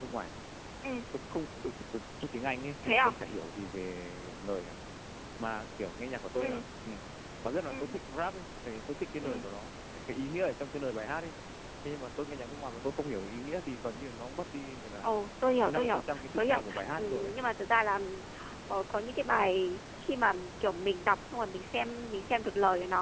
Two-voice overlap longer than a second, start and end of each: 15.7-17.3

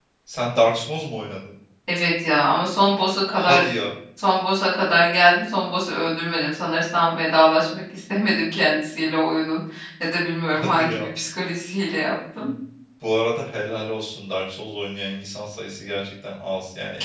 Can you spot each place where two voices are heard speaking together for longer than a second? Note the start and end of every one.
none

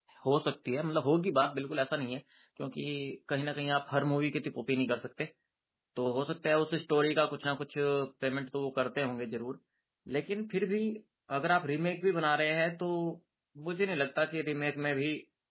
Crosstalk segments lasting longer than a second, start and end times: none

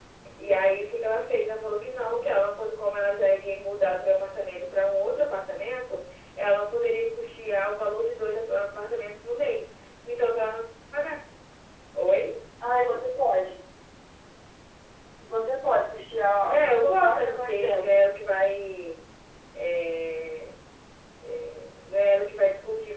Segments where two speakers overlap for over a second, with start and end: 16.5-17.9

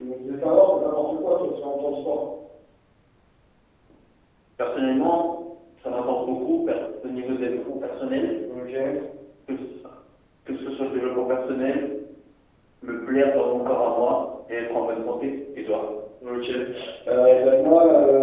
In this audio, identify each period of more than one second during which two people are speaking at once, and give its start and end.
none

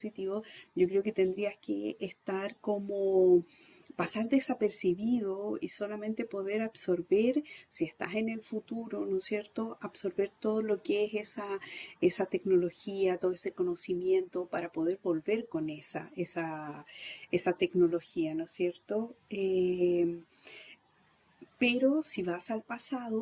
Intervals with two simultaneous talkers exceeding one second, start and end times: none

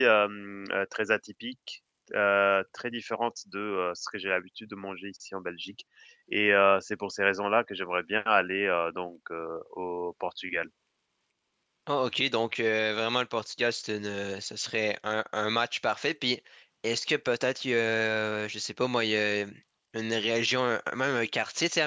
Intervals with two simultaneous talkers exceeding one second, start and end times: none

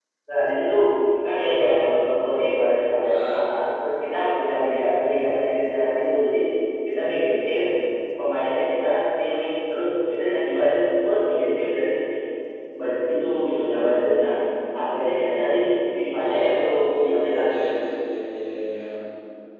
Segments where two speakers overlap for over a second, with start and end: 16.2-17.7

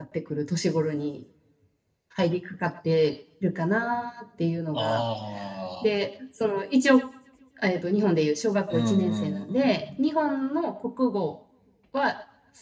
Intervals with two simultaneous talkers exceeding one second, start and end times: 8.7-10.0

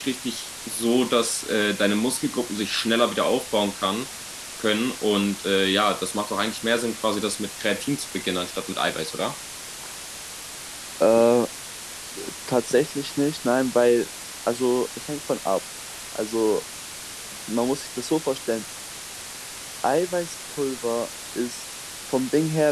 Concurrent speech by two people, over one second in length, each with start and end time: none

